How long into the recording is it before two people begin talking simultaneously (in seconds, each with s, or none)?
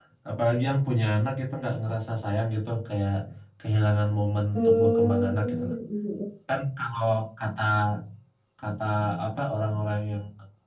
4.5 s